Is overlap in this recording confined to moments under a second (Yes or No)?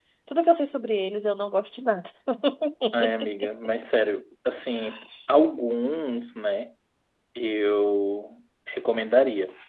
Yes